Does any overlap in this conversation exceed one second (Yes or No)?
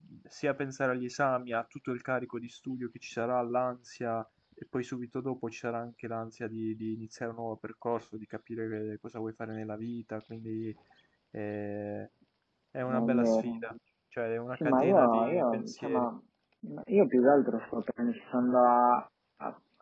Yes